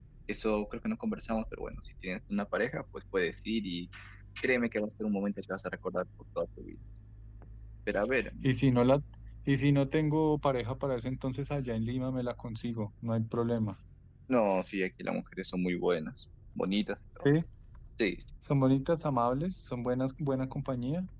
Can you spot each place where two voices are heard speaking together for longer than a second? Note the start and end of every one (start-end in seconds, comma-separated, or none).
none